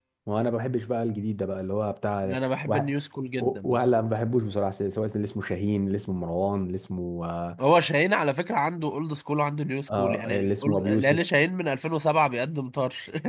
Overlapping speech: Yes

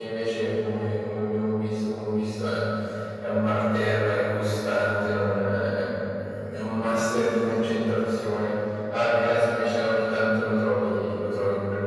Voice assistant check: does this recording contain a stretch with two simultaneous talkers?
No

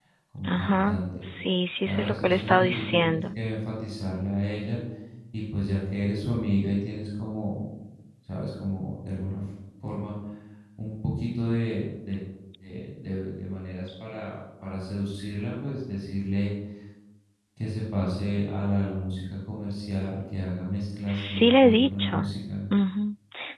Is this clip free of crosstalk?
No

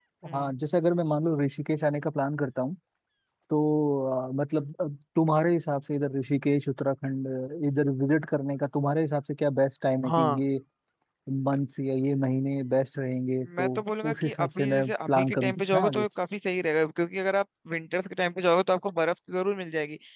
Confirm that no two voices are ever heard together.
No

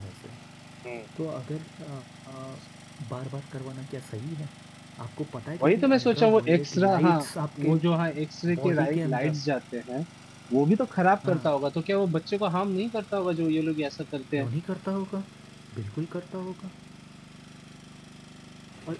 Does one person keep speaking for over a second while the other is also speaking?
Yes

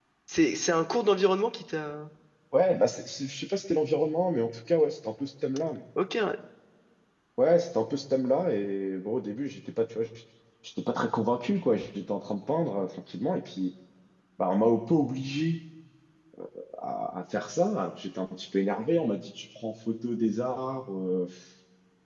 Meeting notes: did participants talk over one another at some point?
No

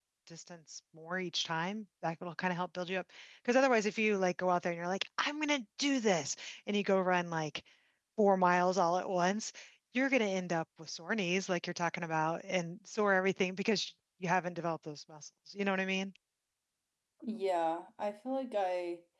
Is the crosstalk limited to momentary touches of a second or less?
Yes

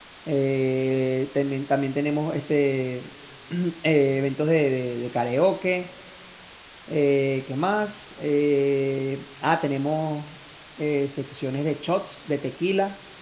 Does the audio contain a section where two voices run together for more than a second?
No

